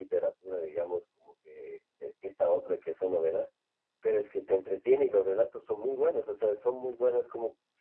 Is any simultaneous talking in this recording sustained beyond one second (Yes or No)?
No